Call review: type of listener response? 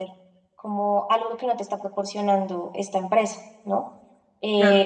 listening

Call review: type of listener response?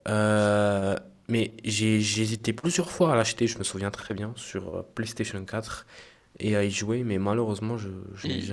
taking over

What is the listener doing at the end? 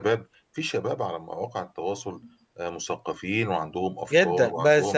taking over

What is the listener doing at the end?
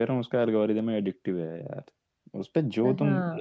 listening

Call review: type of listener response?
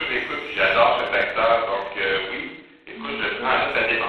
listening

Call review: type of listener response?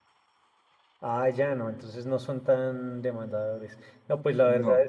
listening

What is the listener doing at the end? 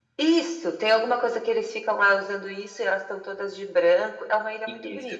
taking over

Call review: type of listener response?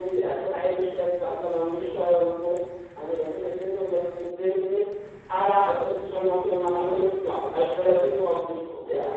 taking over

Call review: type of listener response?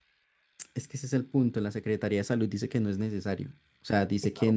listening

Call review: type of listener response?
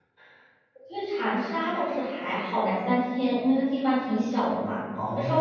listening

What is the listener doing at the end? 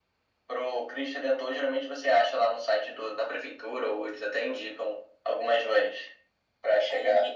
taking over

